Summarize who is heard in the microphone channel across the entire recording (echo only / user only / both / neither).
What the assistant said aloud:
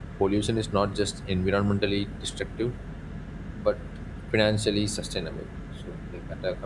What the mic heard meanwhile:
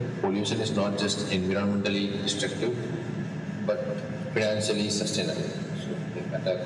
echo only